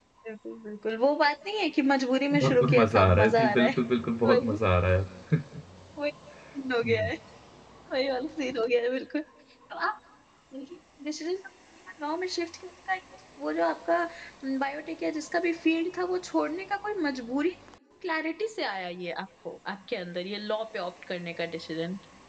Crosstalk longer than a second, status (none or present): present